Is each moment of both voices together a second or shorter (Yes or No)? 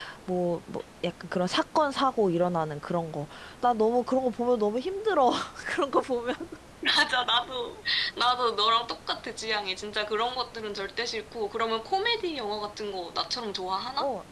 Yes